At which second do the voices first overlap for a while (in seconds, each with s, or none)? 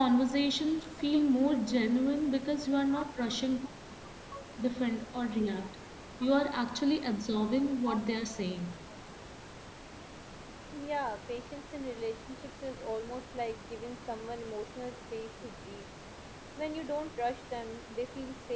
none